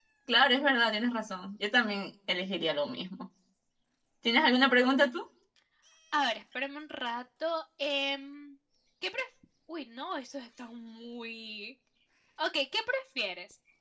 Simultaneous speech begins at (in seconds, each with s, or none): none